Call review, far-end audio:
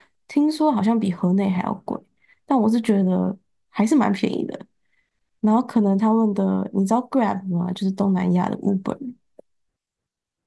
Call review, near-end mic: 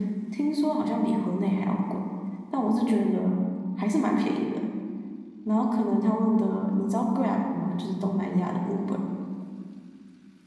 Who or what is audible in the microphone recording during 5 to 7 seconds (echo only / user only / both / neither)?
echo only